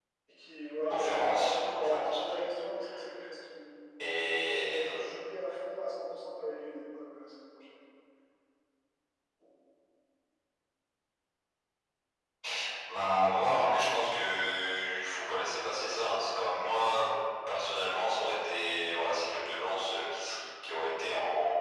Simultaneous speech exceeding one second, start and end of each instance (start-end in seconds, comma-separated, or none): 0.9-2.4